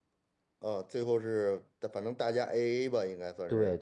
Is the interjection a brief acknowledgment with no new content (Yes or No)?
No